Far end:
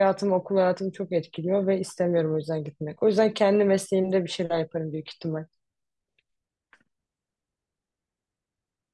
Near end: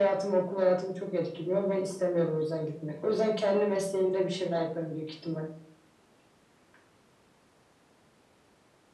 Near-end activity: none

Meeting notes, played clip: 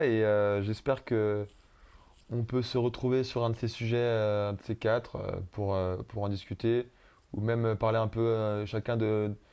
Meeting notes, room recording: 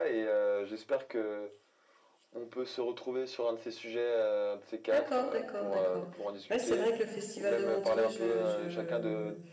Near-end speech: present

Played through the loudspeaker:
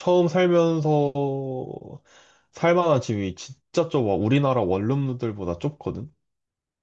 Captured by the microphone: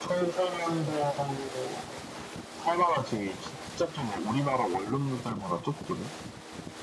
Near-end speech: none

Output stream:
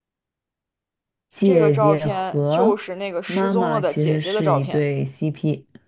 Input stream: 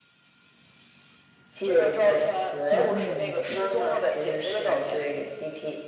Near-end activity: present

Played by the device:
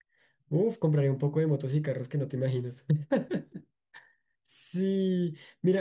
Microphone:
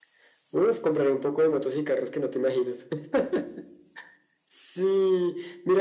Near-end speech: none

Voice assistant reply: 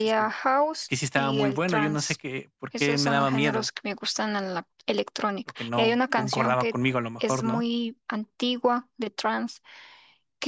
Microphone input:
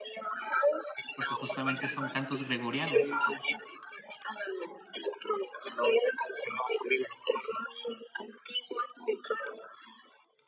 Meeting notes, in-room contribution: present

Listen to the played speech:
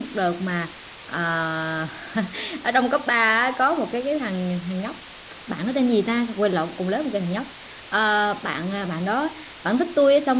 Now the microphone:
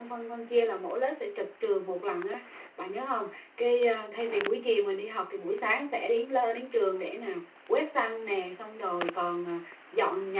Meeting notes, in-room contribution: present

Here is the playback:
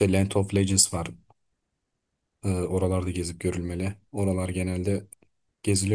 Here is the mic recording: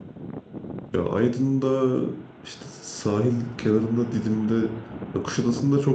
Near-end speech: present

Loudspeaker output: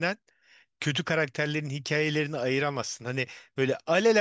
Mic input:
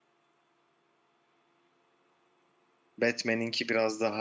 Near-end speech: present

